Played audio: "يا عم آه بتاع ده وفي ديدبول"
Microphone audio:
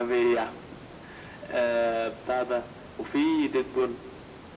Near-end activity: none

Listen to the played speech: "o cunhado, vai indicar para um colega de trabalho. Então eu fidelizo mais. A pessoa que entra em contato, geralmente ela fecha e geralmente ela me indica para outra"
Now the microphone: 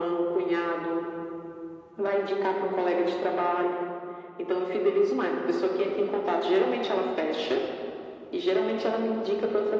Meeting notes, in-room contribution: none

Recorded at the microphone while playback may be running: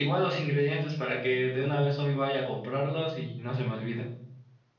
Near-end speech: none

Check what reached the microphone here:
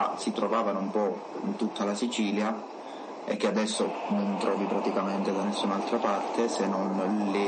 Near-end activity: none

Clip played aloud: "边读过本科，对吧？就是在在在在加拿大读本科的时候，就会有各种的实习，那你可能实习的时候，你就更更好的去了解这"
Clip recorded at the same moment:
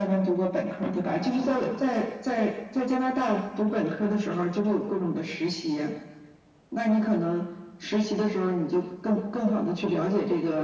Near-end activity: none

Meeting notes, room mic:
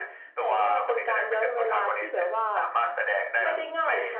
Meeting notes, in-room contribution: none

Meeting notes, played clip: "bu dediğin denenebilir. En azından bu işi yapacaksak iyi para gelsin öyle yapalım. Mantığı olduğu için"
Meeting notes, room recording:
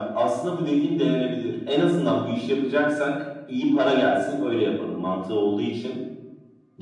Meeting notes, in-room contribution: none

